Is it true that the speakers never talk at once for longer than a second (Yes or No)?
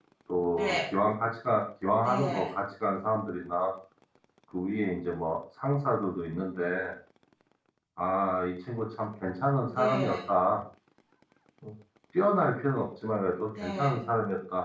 Yes